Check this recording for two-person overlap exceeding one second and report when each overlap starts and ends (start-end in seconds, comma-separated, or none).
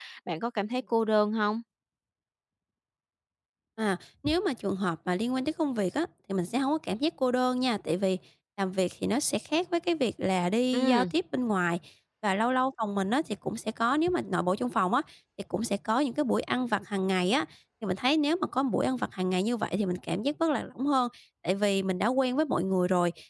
none